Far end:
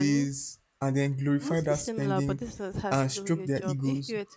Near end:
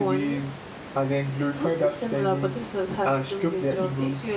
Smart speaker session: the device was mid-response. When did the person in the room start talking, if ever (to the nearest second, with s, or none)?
none